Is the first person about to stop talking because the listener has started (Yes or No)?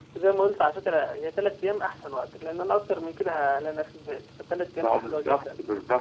Yes